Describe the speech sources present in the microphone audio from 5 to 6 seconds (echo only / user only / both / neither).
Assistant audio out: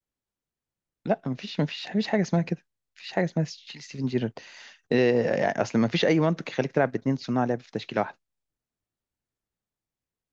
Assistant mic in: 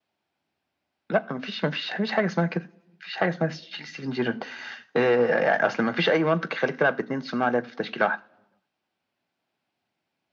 echo only